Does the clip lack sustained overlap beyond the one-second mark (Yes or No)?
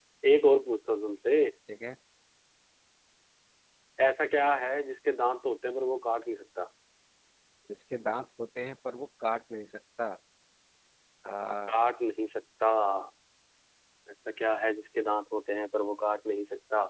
Yes